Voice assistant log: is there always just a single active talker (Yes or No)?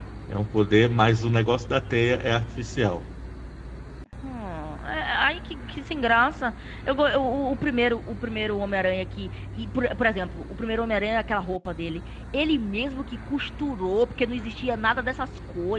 Yes